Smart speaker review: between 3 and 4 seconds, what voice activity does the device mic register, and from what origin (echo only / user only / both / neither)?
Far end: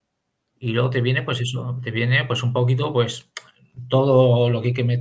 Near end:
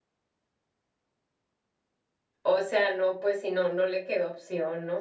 user only